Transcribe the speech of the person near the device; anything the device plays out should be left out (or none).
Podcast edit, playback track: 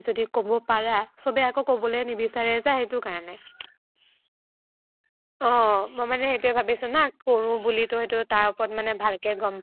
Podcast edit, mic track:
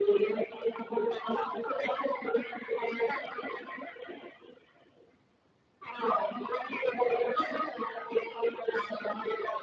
none